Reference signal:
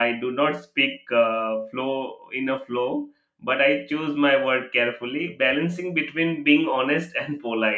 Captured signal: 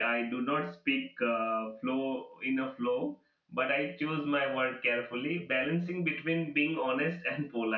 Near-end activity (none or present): none